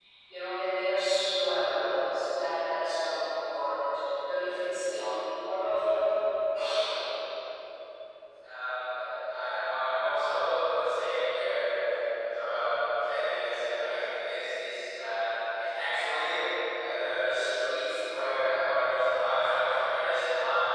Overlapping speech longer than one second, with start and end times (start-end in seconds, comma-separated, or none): none